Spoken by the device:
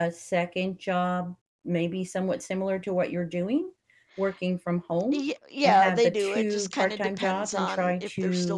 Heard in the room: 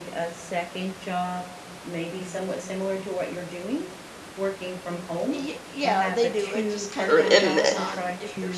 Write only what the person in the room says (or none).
or and